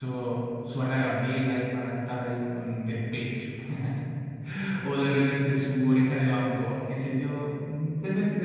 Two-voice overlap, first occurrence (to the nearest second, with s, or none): none